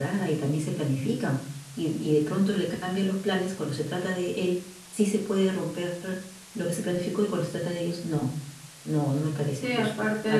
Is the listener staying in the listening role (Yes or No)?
No